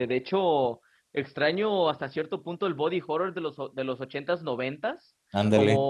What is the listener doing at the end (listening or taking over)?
listening